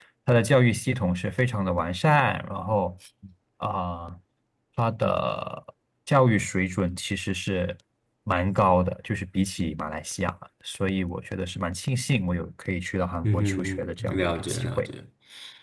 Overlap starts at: 13 s

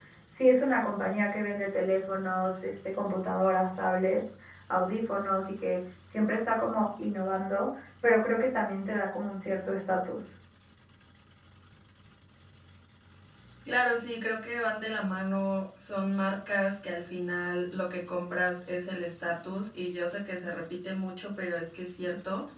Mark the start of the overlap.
none

